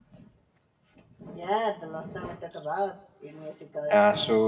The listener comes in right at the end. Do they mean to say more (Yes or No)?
Yes